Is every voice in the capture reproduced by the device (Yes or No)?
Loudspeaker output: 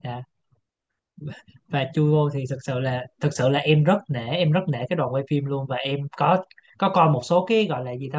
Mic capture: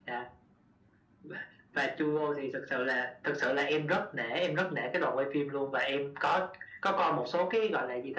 Yes